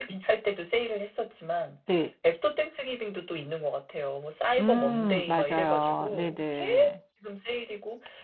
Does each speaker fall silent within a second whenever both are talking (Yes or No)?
No